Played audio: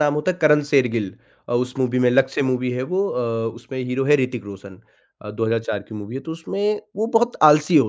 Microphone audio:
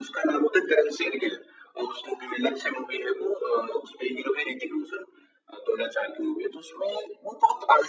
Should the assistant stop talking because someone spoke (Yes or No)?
No